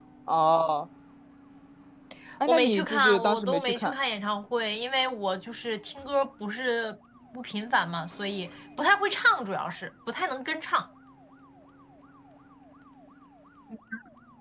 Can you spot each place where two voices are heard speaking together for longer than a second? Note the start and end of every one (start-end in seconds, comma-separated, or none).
2.5-3.9